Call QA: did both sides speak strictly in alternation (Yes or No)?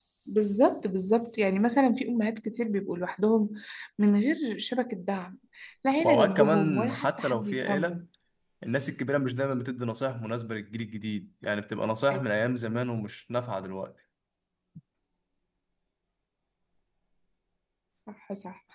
No